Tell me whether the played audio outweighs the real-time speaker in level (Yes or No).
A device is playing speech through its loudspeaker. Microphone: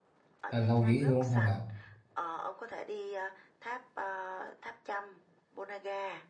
No